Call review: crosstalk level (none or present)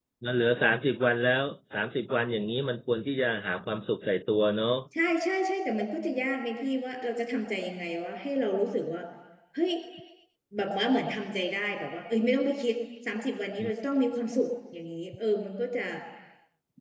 none